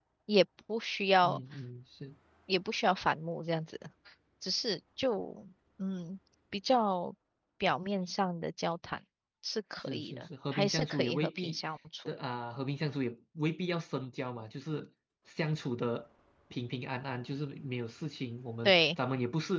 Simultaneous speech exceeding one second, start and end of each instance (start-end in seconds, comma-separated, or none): 9.8-11.6